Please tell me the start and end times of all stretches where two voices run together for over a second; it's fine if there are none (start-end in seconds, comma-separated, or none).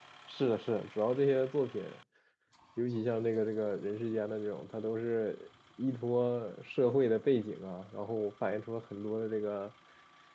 none